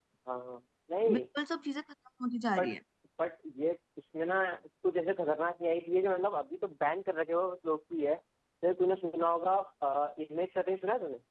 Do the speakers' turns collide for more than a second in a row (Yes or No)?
No